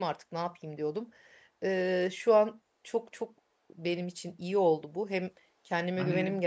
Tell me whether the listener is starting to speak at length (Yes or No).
Yes